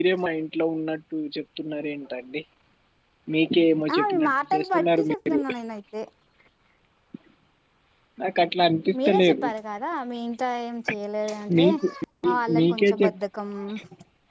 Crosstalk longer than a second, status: present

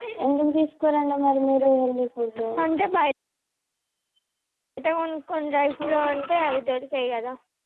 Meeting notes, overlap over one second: none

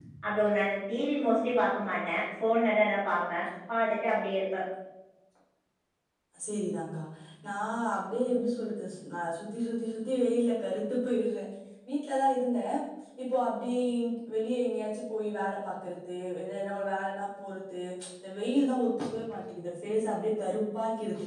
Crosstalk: none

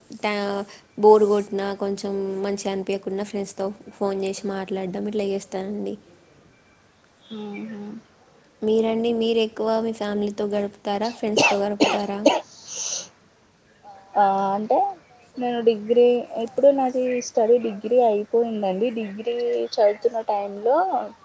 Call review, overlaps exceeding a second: none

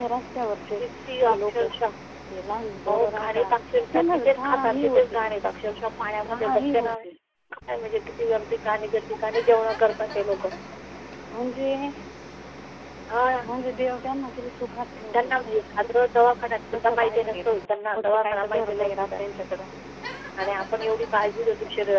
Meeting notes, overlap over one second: present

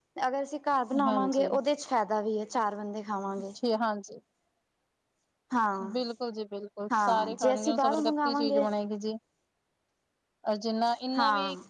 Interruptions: present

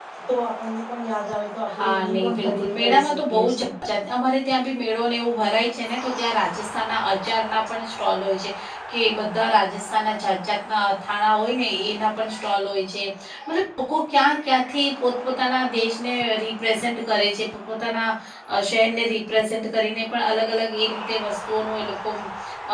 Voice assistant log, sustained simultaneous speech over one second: present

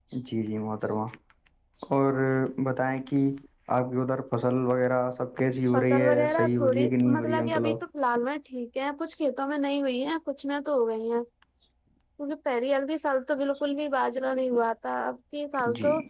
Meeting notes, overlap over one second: present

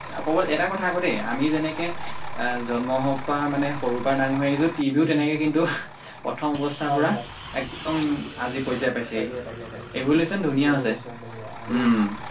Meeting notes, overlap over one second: none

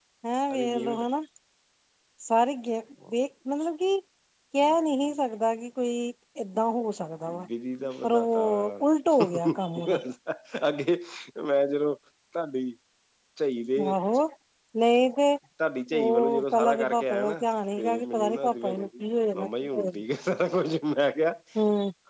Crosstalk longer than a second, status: present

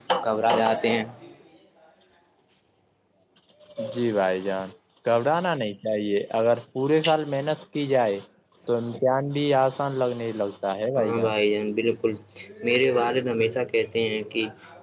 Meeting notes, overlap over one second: none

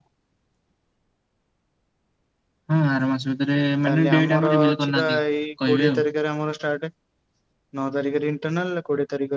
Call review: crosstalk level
present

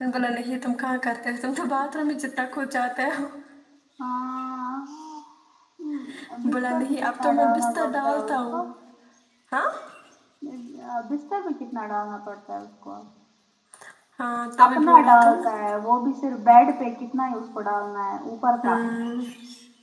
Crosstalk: present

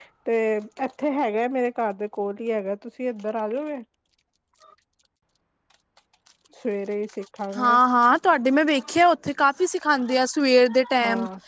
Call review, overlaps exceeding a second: none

